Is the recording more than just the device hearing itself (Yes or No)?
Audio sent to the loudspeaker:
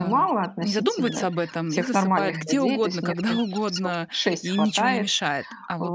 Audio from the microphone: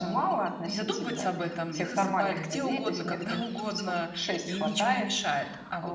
No